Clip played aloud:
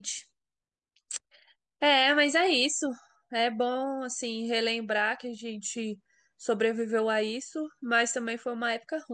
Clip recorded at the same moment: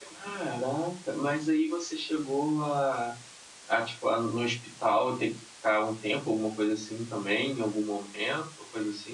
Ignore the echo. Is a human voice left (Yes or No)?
Yes